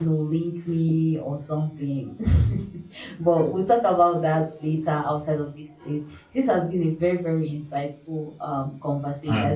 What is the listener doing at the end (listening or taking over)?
listening